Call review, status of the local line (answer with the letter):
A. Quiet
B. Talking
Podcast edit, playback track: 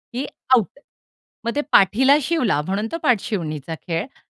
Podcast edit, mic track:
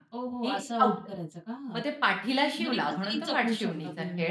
B